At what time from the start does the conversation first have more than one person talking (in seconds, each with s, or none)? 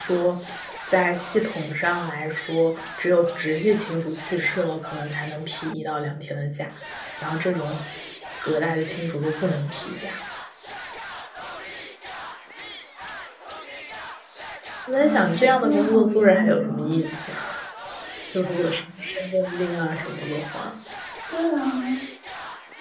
14.9 s